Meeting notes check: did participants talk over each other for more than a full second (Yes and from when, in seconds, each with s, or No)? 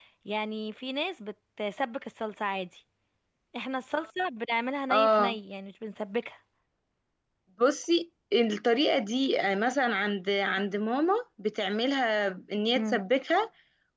No